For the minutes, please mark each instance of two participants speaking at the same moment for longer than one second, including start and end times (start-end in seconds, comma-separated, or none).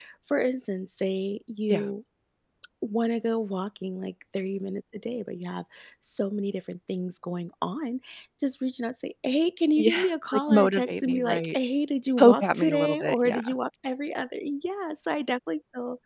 9.8-11.6, 12.2-13.4